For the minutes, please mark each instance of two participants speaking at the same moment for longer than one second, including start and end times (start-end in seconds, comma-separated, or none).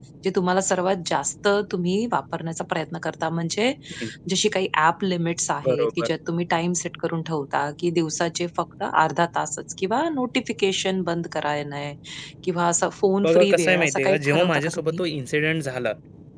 13.2-15.0